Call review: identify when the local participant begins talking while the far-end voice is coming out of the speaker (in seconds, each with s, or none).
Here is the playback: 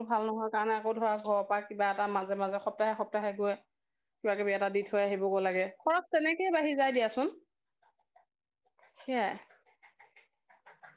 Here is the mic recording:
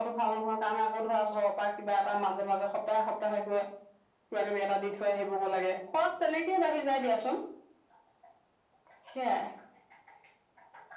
none